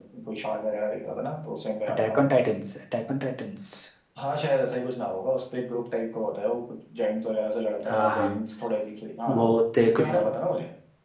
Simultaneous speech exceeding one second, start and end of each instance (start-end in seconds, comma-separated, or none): none